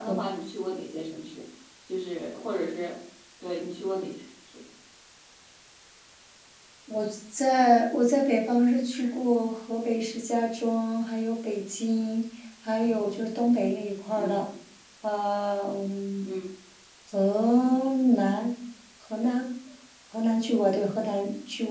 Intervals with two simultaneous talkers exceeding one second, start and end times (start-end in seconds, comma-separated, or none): none